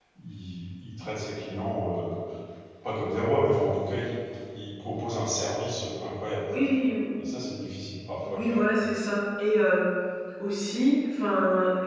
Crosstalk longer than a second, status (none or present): none